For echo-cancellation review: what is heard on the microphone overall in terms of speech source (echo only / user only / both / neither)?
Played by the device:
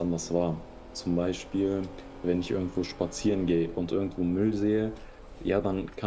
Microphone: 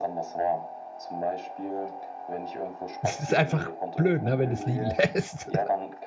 both